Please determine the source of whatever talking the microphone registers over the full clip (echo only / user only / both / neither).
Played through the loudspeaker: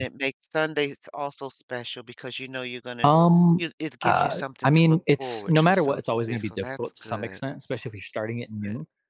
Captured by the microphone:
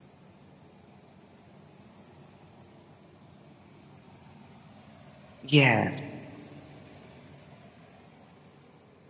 user only